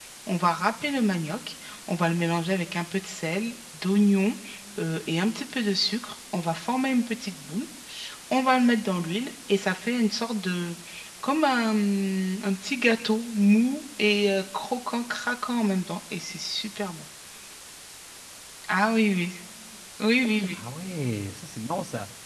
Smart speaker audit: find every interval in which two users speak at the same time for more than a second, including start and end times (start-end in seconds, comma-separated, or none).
none